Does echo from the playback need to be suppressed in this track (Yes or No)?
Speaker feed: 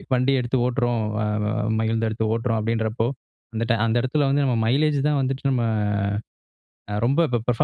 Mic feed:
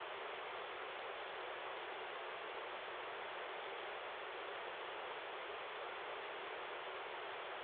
No